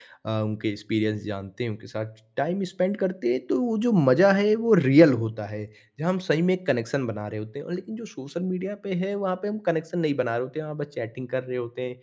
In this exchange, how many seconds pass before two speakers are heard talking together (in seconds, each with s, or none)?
none